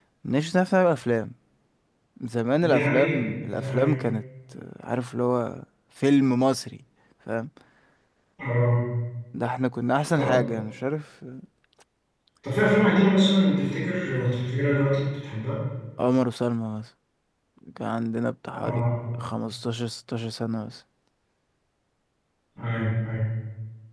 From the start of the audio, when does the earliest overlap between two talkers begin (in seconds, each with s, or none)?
2.6 s